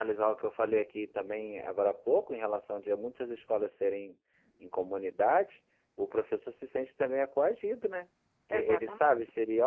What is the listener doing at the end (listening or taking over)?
listening